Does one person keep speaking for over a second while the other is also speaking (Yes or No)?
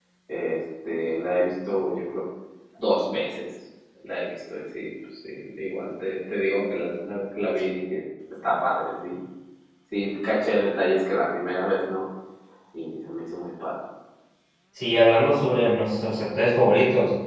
No